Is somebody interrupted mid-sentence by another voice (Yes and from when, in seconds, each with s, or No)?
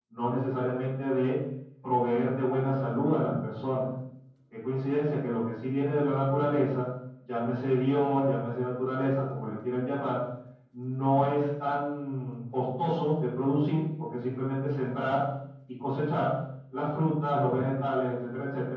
No